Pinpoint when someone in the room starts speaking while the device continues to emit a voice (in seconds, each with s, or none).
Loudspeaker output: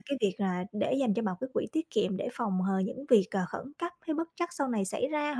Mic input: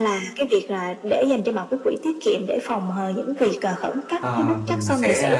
4.2 s